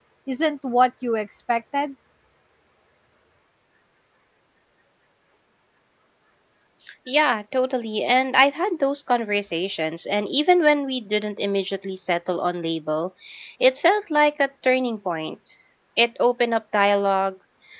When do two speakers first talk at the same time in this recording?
none

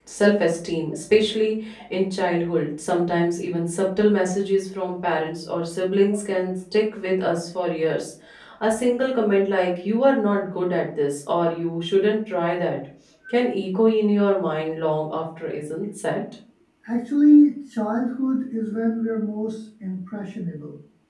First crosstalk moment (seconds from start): none

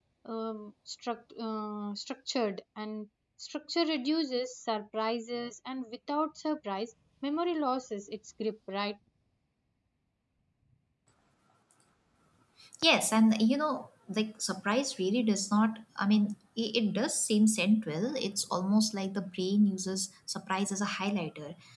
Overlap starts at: none

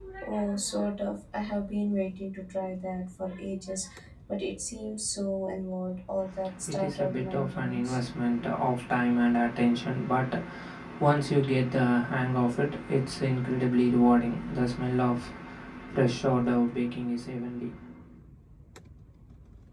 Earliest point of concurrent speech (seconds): 6.4 s

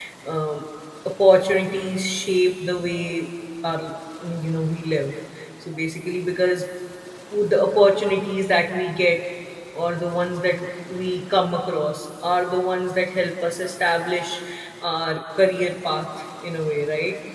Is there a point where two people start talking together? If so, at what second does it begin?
none

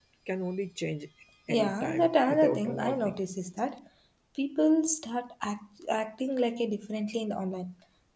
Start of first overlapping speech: 1.5 s

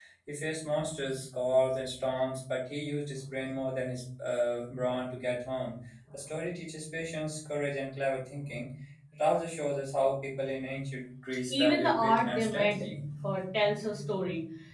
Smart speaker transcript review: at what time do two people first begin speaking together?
11.5 s

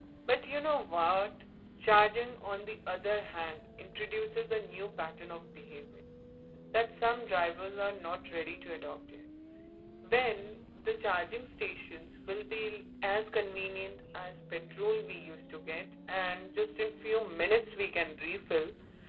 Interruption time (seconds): none

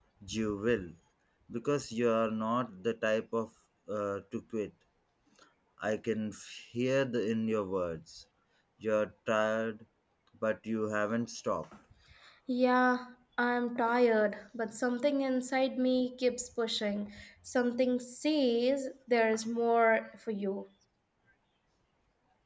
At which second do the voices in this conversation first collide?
none

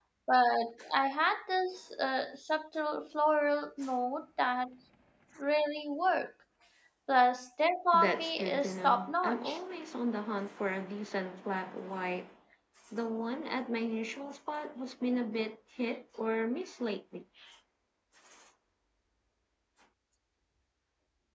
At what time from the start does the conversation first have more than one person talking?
7.9 s

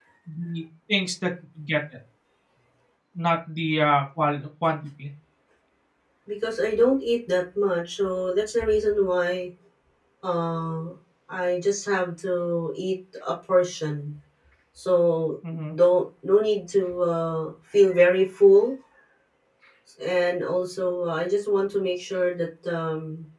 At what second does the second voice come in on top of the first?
none

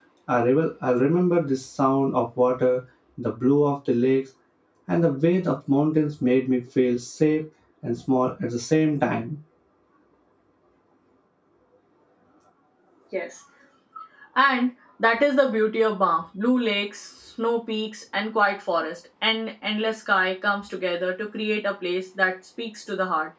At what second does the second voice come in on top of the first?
none

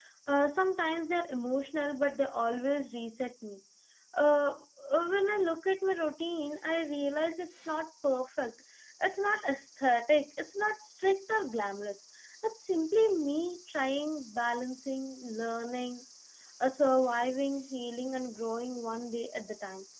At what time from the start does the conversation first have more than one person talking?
none

